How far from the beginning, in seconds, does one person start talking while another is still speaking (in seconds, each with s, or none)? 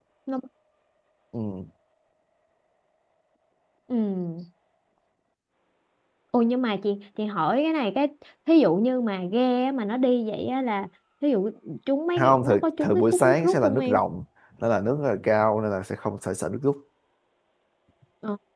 12.2 s